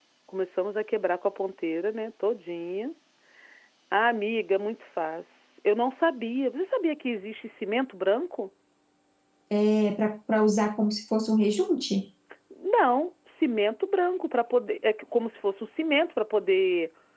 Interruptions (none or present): none